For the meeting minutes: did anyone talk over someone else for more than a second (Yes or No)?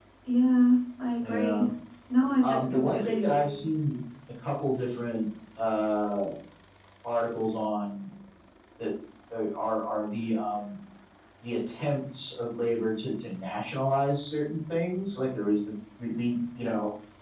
Yes